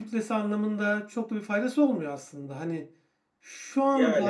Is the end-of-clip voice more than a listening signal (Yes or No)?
No